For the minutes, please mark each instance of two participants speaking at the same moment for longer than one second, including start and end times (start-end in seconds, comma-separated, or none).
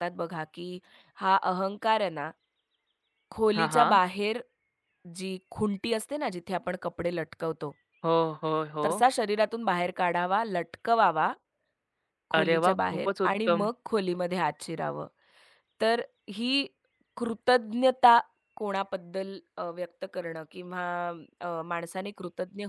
12.4-13.7